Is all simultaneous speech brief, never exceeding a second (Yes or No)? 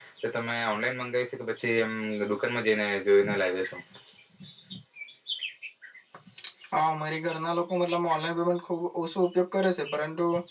Yes